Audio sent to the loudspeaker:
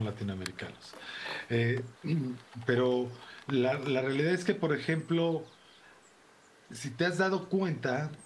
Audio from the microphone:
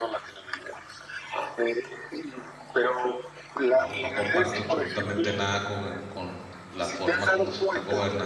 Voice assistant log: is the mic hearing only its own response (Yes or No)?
No